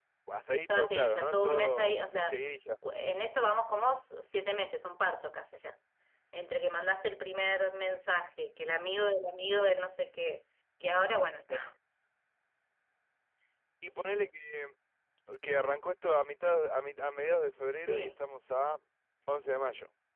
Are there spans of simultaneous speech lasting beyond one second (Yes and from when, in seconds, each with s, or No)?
Yes, from 0.7 s